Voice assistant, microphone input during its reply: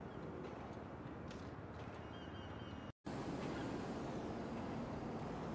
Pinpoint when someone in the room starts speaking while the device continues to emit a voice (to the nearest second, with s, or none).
none